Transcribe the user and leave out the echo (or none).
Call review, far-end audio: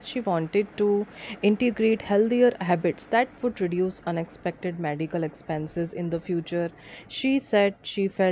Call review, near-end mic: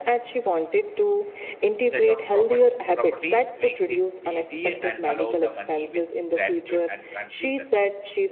set of proper properties makes it easy and allow the money with gratitude and confusion